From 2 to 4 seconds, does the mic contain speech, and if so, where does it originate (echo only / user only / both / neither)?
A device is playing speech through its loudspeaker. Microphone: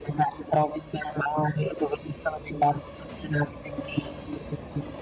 echo only